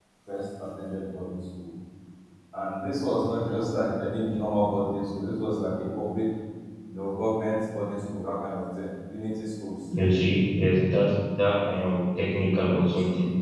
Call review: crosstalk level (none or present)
none